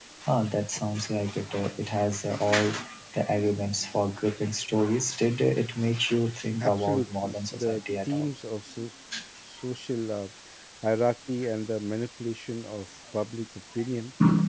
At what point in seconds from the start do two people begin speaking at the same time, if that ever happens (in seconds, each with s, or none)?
6.6 s